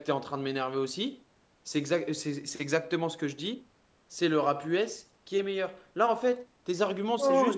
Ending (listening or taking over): taking over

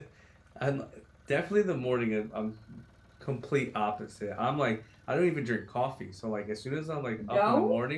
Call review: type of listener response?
listening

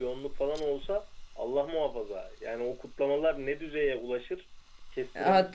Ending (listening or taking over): taking over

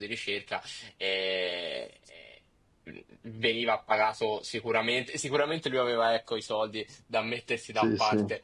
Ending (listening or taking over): listening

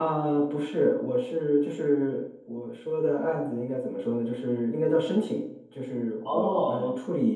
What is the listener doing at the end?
listening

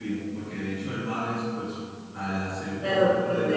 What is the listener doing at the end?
taking over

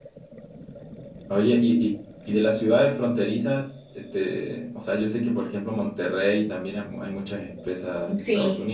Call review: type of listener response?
listening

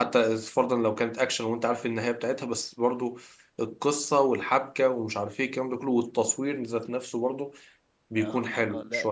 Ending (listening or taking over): taking over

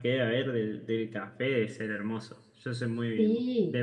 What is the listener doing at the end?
taking over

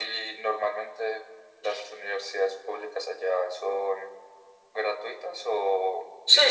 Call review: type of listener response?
taking over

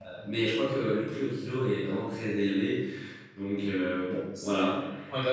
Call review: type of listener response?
taking over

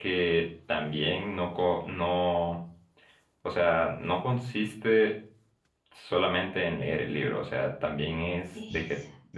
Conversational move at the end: listening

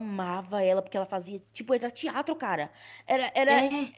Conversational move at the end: listening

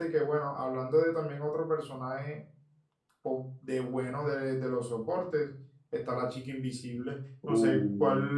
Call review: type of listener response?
listening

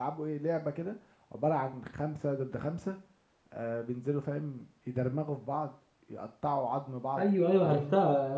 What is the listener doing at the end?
taking over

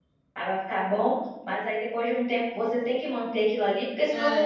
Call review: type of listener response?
taking over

